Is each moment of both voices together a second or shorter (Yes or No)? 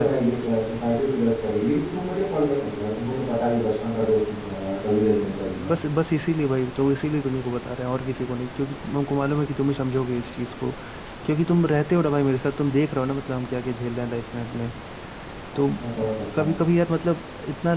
Yes